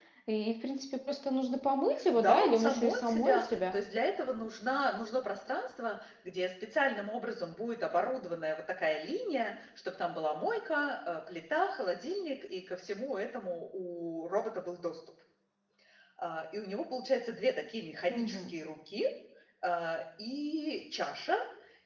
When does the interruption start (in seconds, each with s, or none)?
2.2 s